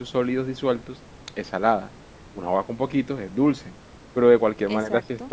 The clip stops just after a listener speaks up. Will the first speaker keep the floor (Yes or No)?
Yes